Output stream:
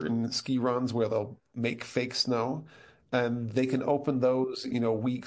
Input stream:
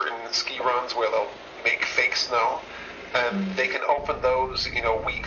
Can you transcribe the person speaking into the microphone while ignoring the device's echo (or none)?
Mm.